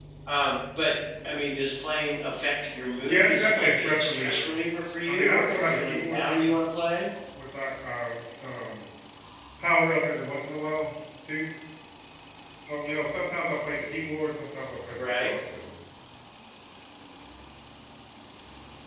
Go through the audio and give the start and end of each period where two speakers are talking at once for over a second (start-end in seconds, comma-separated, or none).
3.0-4.5, 5.1-6.5